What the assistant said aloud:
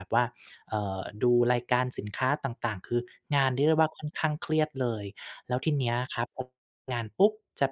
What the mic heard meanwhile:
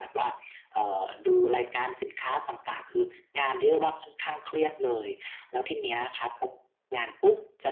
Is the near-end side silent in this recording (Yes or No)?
Yes